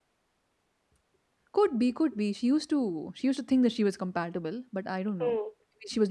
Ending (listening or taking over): taking over